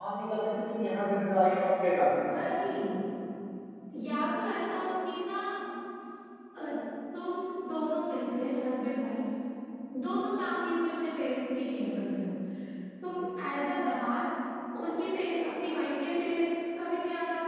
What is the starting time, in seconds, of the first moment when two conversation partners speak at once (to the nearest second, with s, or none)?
none